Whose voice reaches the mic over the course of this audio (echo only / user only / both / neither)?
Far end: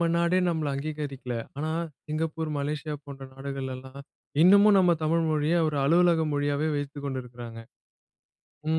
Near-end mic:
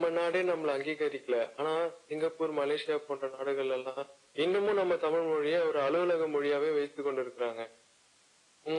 echo only